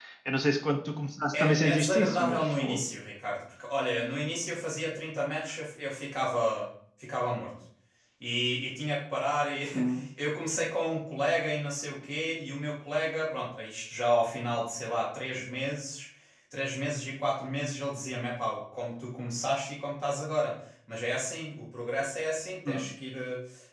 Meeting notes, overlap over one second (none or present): present